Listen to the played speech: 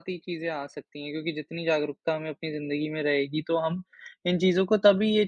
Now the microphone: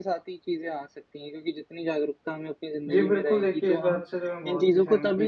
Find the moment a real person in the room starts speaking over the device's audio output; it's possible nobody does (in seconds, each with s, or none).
2.9 s